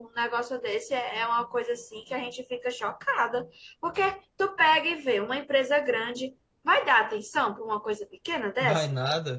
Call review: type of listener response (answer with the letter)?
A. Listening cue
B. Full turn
B